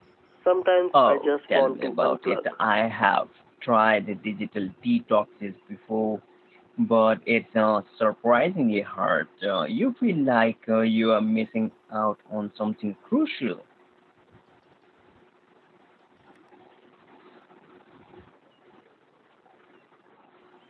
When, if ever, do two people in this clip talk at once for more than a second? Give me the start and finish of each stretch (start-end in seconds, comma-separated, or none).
0.9-2.4